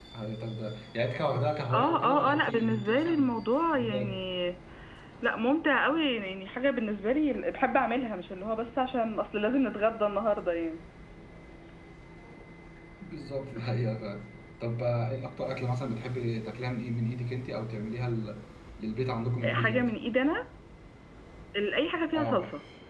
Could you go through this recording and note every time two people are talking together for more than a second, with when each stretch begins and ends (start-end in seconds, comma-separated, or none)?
1.7-3.3